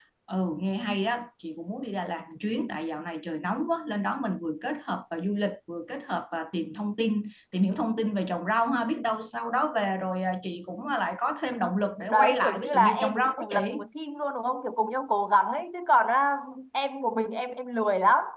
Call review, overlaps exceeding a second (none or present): present